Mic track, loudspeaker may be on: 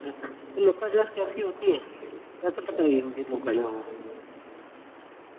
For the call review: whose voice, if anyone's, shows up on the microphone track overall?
echo only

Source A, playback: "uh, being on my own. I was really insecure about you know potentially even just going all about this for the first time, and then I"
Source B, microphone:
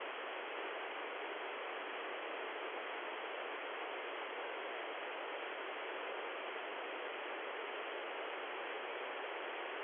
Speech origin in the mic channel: neither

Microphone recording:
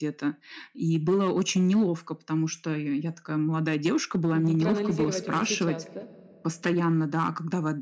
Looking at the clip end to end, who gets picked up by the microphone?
both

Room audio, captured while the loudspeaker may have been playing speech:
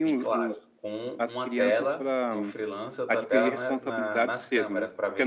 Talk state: both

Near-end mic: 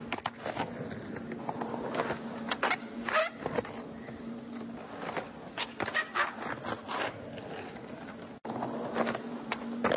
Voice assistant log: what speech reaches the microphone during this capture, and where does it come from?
neither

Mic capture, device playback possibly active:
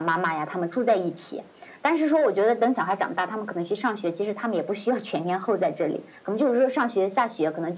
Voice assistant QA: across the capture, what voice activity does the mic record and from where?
echo only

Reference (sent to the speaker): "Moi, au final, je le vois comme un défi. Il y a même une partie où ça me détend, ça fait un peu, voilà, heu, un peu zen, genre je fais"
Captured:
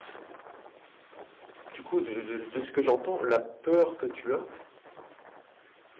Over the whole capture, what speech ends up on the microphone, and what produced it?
user only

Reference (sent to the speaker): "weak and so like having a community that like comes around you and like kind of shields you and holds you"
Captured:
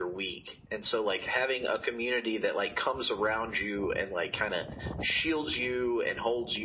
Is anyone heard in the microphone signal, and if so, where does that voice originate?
echo only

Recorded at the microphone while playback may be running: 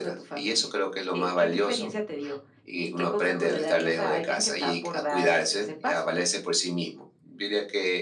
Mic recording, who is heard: echo only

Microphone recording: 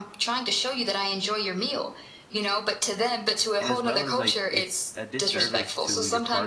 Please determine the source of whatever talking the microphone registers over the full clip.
both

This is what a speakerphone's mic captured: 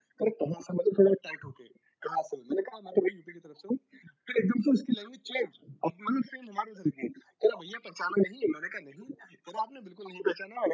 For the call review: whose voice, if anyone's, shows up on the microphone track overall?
echo only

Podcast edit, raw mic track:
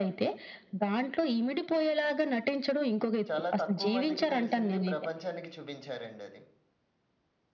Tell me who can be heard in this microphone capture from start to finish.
both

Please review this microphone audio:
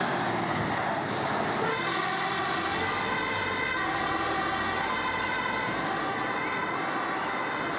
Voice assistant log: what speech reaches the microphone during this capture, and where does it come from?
neither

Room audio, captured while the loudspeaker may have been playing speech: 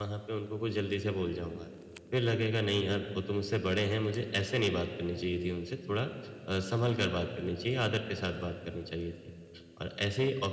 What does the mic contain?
user only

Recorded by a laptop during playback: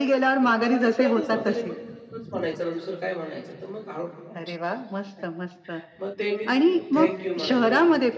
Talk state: both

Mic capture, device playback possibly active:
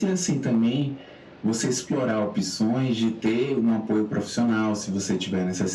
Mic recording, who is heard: echo only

